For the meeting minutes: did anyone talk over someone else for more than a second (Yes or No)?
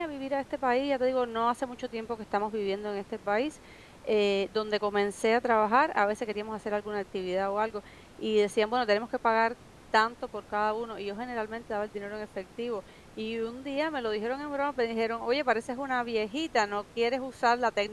No